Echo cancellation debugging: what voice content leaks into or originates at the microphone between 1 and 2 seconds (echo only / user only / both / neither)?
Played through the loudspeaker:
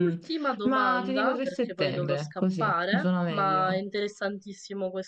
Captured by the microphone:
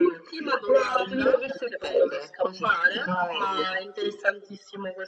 echo only